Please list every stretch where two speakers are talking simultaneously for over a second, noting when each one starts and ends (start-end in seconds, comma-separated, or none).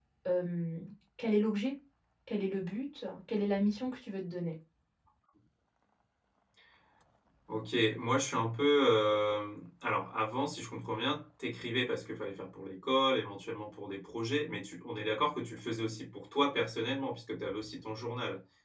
none